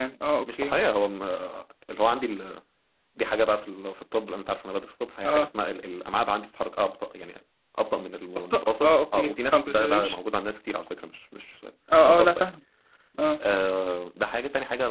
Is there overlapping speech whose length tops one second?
Yes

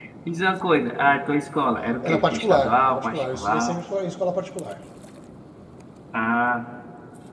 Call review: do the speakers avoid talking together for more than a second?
No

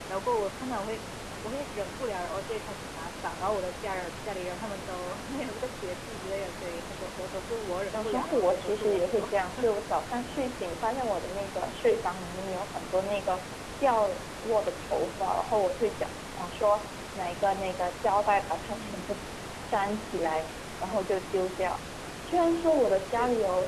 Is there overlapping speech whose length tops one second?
Yes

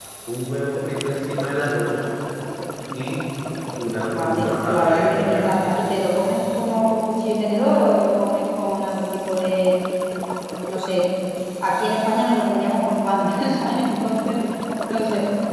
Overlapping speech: Yes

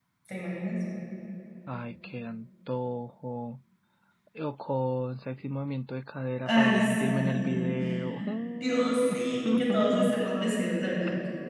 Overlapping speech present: Yes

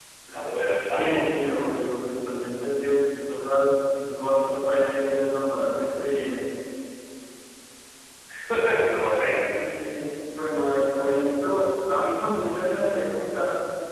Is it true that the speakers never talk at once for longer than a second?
Yes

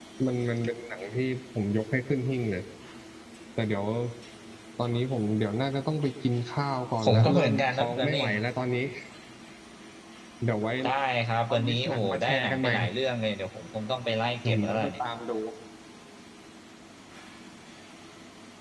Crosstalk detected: Yes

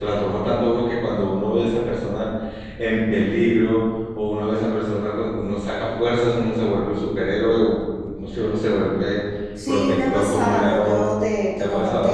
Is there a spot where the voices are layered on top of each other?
Yes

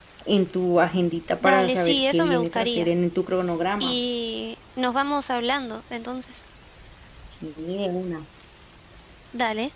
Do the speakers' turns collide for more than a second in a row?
Yes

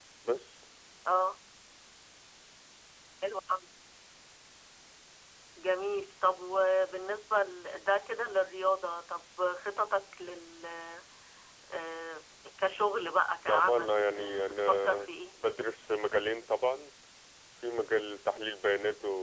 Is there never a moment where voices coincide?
No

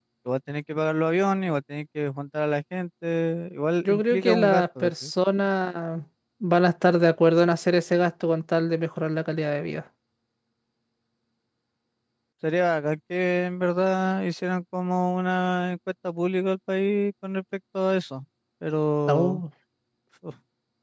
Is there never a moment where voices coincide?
No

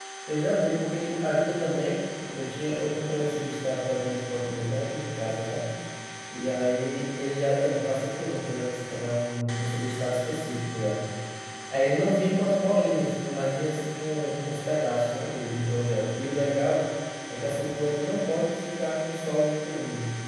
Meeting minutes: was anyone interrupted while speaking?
No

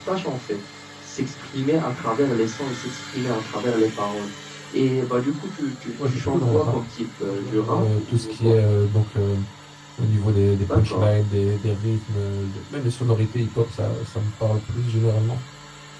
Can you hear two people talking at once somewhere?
Yes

